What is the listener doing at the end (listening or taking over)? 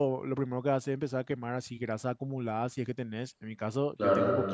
listening